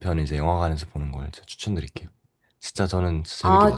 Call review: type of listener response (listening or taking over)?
taking over